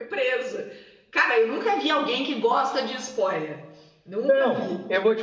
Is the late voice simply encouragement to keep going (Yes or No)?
No